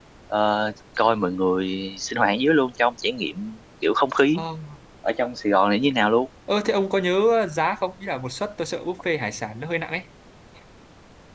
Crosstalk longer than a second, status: none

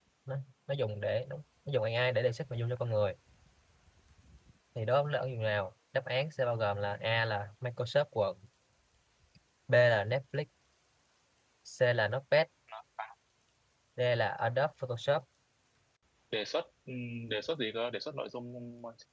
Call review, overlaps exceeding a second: none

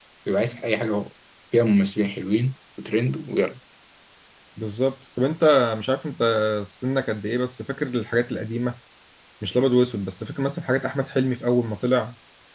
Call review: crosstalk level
none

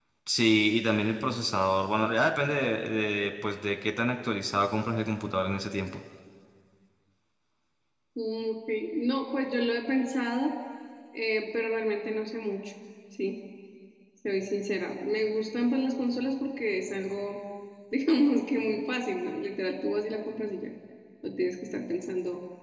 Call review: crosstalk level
none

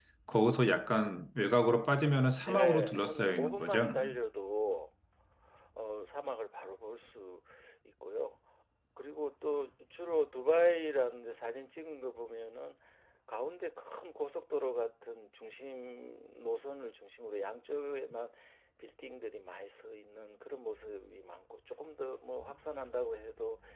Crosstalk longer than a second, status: present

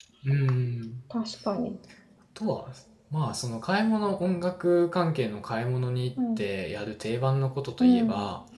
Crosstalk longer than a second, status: none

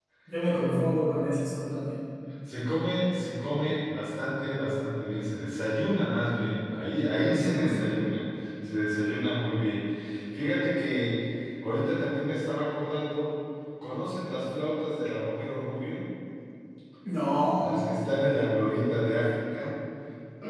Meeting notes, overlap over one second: none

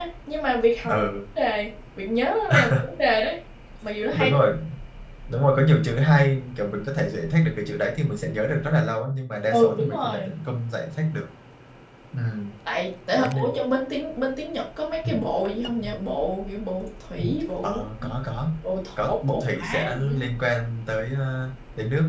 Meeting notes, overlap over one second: present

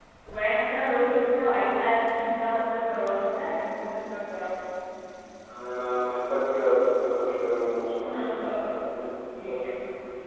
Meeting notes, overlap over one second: none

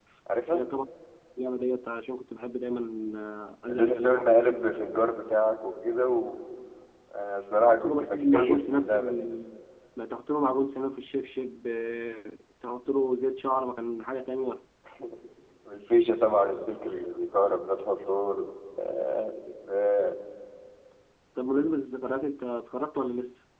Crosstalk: present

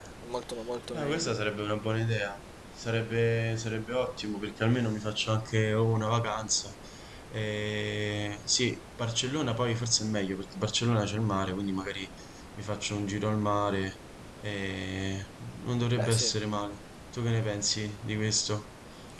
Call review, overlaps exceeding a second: none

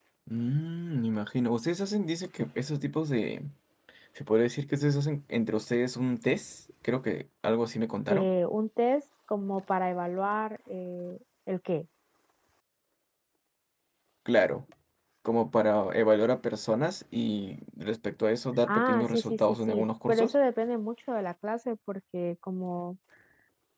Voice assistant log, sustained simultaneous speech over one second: present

